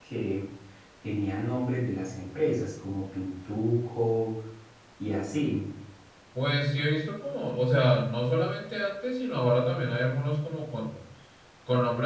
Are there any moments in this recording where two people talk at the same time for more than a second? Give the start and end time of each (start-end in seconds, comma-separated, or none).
none